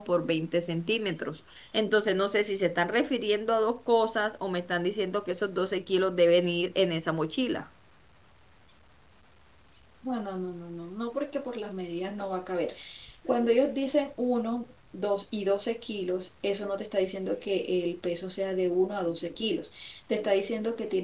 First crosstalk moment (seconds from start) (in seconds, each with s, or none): none